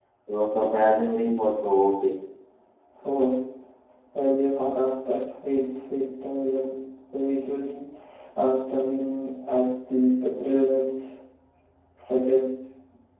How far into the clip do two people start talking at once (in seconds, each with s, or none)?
none